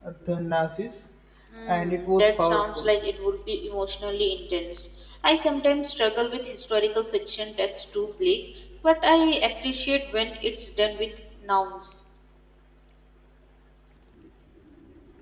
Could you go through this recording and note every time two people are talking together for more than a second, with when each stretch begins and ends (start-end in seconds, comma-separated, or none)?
1.7-2.9